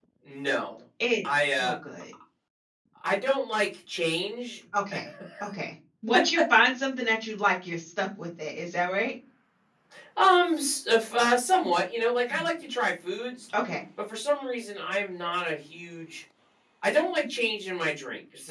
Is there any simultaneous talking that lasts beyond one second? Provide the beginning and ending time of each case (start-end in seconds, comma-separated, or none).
none